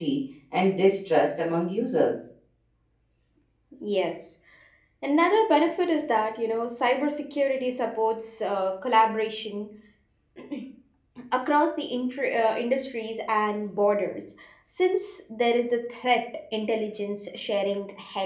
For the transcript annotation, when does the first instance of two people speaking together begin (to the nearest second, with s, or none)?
none